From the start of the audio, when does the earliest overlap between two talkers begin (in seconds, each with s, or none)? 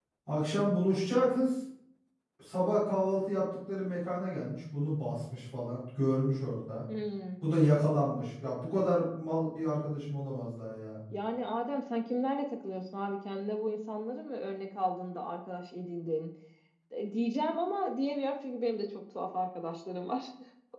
none